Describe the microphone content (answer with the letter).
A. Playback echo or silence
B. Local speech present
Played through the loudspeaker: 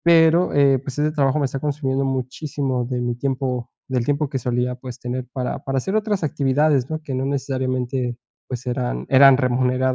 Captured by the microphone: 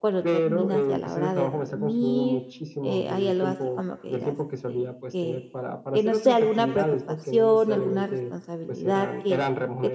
B